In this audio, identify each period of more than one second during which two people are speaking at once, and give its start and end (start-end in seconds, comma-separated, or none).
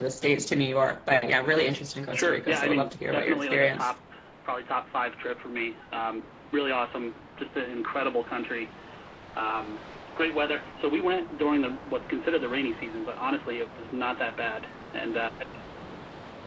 2.1-3.9